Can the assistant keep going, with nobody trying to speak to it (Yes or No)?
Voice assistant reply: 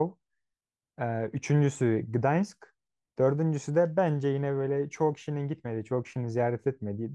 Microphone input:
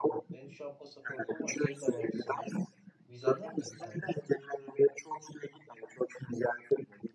No